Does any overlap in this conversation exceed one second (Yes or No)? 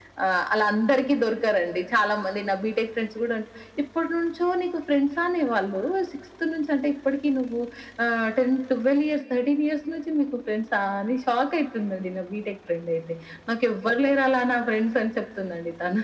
No